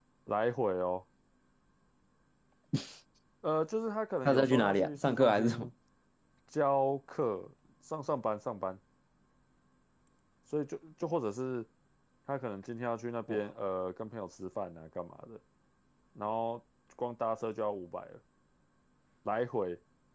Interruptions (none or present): present